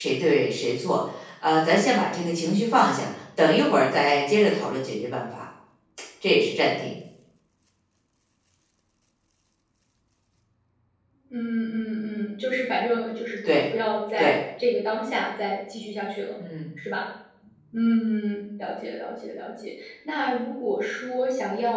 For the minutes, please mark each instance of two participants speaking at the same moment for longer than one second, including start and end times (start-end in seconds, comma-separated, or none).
none